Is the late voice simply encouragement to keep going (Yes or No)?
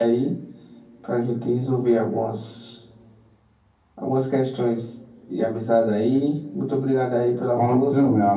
No